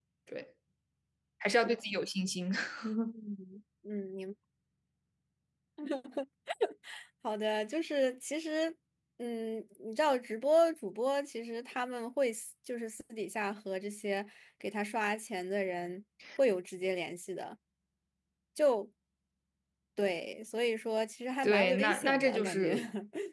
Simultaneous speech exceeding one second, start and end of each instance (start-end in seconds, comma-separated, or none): 21.4-22.7